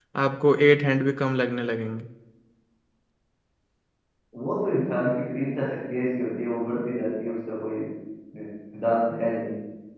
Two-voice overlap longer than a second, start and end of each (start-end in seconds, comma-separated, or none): none